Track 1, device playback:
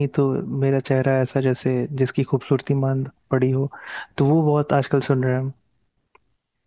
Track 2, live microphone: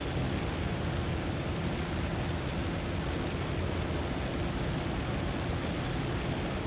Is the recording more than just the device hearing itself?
No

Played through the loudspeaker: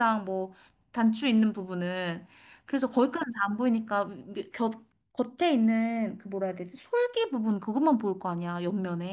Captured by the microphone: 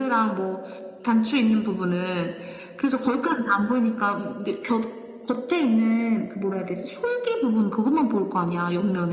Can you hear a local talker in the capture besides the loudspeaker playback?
No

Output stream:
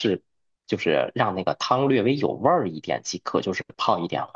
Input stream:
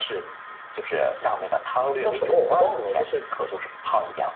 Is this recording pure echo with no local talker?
No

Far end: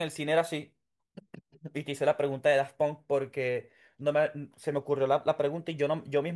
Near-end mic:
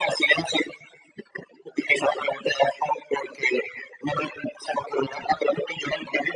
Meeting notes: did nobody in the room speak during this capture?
Yes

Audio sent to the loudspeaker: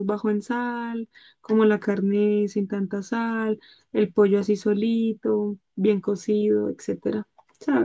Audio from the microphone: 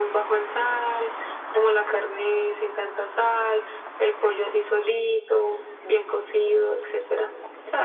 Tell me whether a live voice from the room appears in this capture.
No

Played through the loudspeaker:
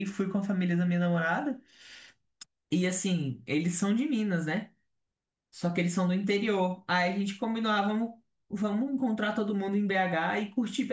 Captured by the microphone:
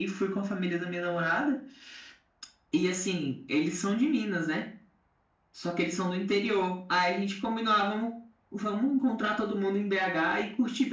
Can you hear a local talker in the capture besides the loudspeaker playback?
No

